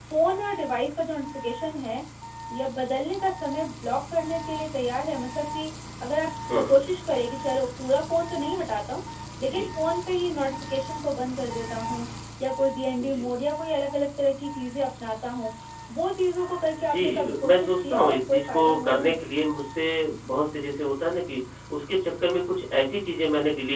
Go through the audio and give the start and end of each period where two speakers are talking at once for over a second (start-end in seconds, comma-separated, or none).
16.9-19.1